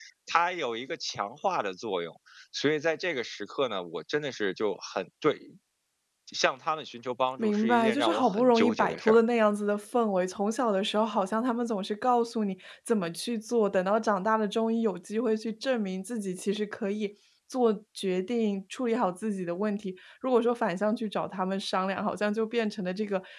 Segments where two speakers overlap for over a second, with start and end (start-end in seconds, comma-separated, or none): 7.4-9.2